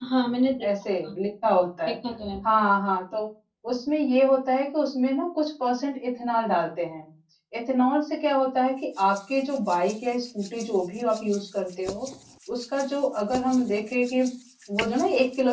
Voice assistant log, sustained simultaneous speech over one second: none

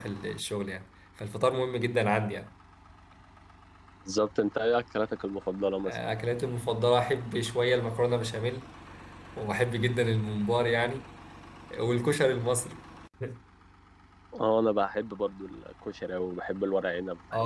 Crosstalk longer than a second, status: none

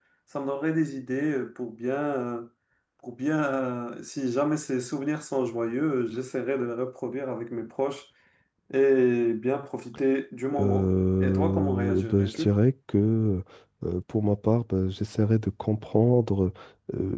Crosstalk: present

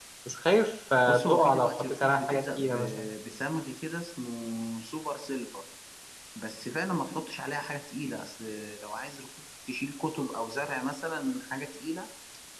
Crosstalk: present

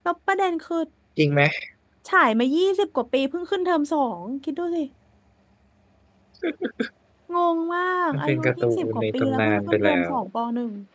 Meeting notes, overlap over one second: present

